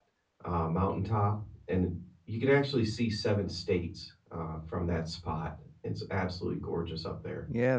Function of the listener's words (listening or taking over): taking over